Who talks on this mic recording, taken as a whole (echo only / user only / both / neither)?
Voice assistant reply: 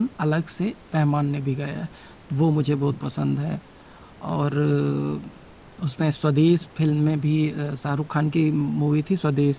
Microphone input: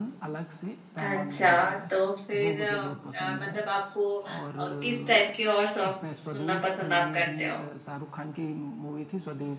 both